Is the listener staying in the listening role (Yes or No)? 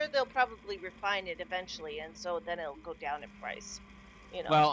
No